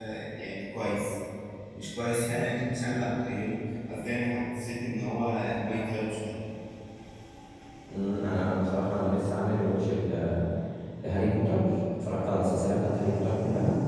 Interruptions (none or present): none